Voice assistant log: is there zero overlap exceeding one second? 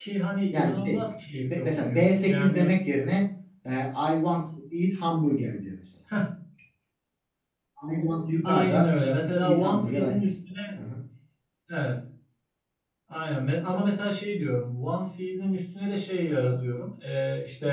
No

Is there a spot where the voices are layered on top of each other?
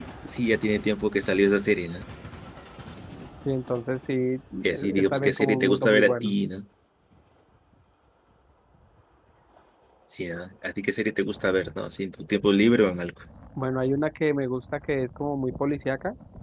Yes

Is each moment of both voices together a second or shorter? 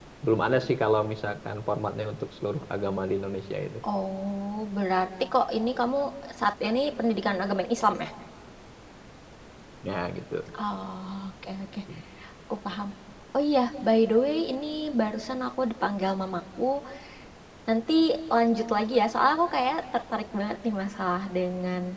Yes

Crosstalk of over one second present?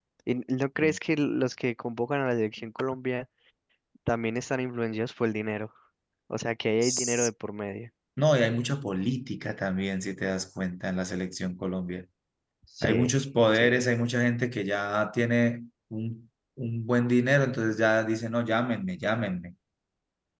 No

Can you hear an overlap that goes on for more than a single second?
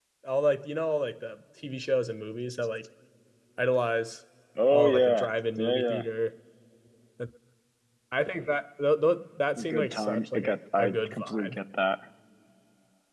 Yes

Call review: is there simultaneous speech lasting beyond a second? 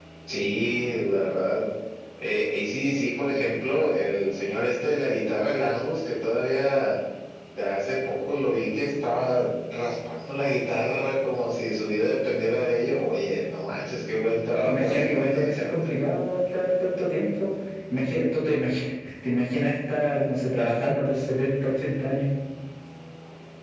Yes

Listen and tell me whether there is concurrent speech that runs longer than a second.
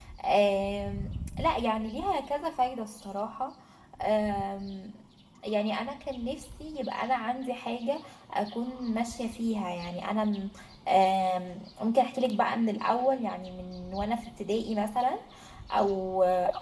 No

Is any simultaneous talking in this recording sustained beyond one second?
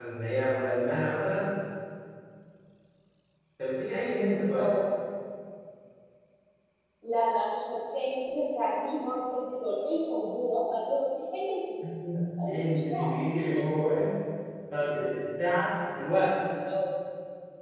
Yes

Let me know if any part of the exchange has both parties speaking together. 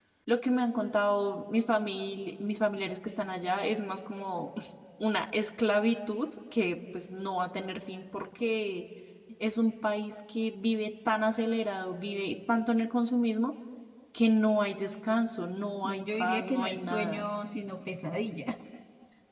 Yes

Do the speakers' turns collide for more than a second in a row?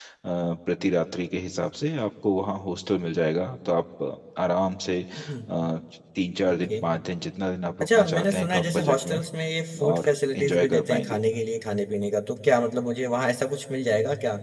Yes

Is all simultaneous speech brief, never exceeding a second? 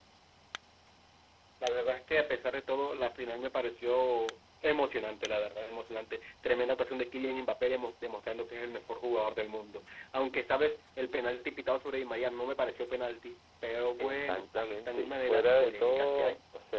No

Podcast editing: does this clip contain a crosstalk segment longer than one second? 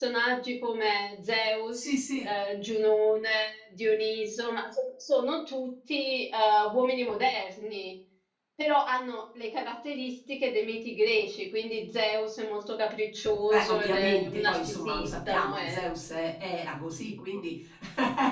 Yes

